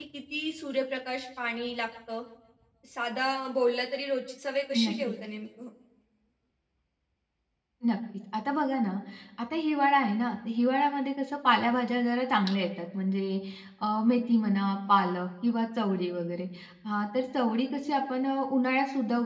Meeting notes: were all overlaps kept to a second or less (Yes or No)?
Yes